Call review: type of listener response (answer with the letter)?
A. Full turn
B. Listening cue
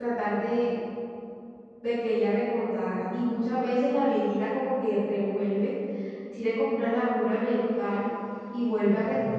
B